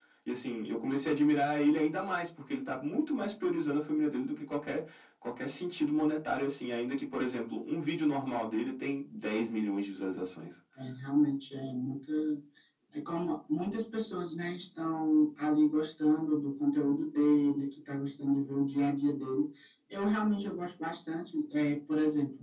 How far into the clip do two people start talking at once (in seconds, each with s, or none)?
none